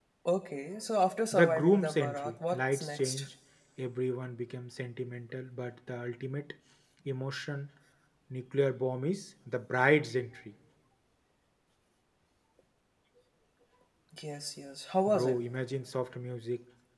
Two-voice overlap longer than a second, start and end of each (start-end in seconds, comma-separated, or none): 1.3-3.2